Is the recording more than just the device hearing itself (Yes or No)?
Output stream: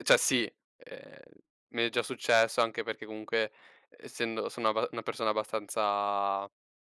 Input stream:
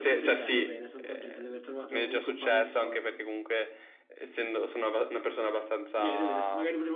Yes